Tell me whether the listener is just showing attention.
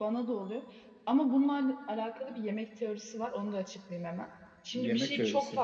Yes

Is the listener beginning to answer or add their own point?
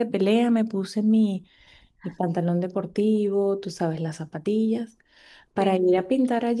No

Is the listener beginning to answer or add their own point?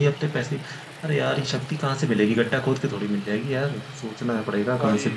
Yes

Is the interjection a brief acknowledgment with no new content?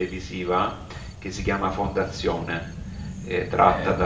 Yes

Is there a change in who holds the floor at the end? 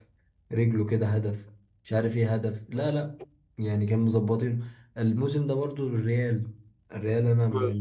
Yes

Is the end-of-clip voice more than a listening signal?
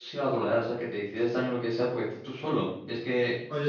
Yes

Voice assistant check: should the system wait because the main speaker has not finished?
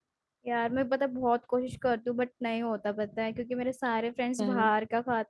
Yes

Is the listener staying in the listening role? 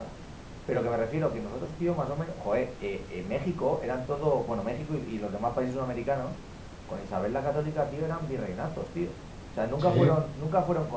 Yes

